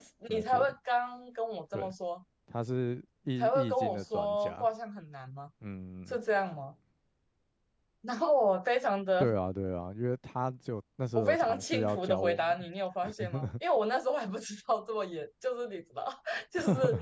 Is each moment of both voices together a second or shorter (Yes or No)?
No